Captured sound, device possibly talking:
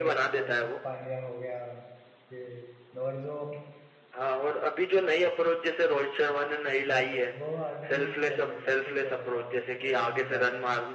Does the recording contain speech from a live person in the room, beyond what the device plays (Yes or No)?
Yes